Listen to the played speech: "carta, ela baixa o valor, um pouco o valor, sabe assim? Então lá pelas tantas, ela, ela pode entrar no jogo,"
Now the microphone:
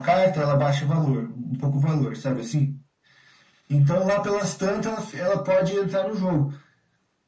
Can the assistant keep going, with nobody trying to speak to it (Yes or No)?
Yes